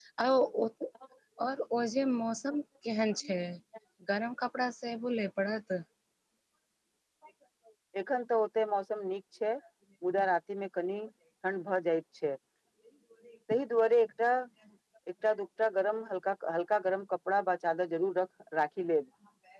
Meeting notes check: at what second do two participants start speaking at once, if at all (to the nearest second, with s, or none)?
none